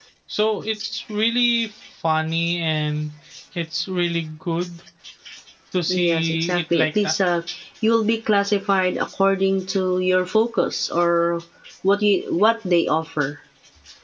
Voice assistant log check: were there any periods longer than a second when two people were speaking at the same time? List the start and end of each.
5.9-7.1

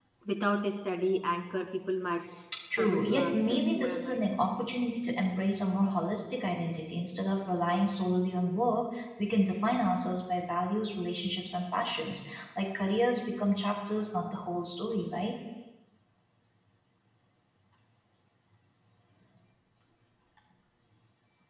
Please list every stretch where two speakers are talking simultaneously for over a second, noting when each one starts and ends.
2.7-4.2

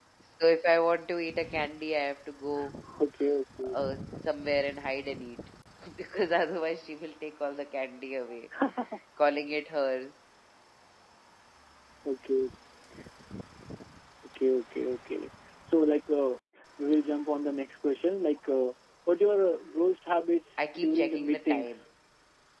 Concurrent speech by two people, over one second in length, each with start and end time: 20.6-21.8

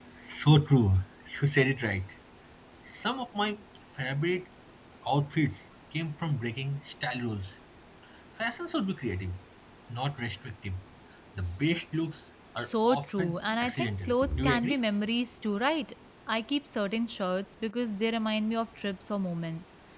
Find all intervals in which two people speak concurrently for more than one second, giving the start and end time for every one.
12.6-14.8

